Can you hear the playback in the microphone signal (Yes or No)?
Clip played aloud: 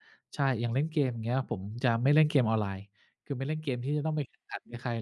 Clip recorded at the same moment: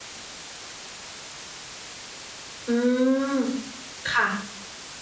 No